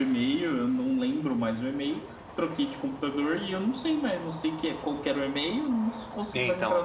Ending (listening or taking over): listening